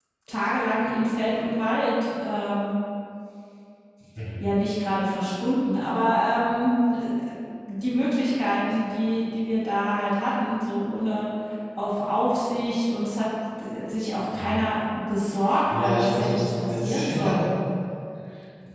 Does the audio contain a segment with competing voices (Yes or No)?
Yes